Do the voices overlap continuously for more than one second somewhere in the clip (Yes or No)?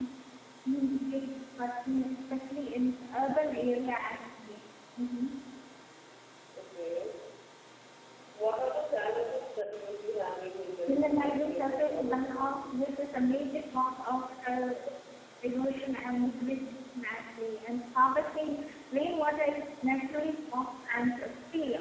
Yes